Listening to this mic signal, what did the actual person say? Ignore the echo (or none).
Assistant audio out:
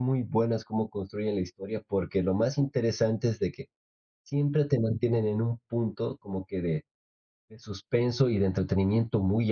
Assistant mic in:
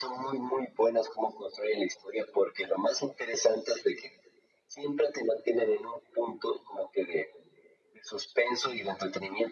none